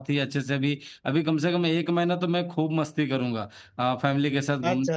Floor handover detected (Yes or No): No